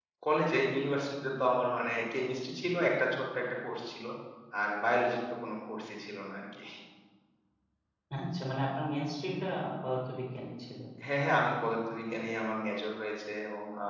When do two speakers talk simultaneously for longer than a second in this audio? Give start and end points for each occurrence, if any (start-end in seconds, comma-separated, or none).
none